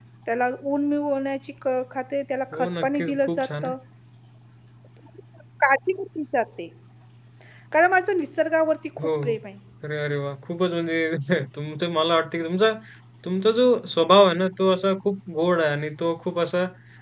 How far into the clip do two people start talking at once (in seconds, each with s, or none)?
2.5 s